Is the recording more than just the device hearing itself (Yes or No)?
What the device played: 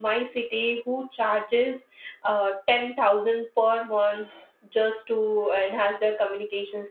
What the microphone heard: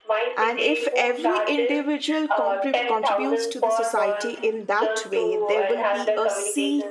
Yes